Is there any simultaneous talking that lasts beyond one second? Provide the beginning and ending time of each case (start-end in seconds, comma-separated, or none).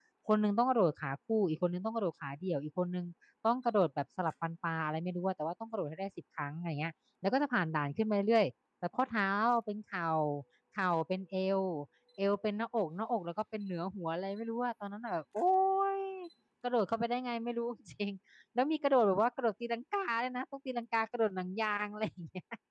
none